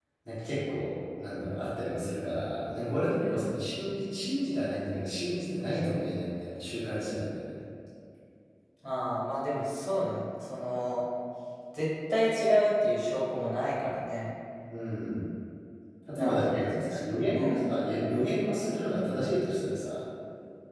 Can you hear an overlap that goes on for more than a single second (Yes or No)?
Yes